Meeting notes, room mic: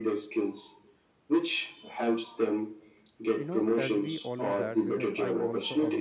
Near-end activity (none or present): present